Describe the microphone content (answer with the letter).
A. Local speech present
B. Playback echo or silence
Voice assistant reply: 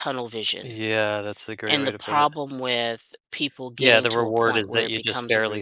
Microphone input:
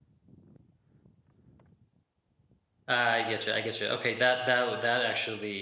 A